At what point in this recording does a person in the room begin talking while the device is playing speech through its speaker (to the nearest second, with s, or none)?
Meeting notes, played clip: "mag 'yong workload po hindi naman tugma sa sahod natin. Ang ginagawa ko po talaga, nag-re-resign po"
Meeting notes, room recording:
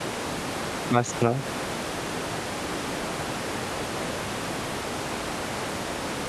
1 s